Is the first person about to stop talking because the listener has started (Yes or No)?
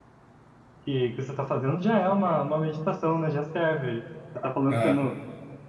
No